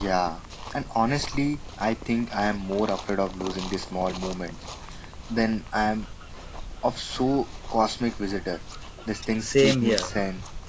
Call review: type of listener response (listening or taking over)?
taking over